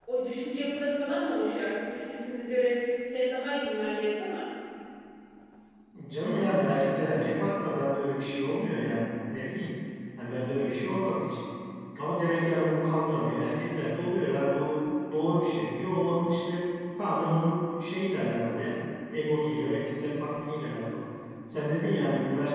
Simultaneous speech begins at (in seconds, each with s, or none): none